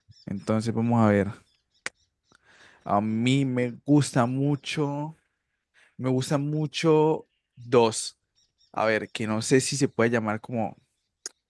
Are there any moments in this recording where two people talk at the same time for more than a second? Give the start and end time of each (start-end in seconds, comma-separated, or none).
none